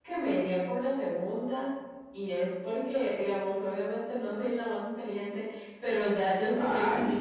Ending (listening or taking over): listening